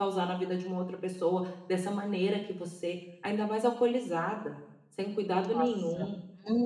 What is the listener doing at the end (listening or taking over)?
taking over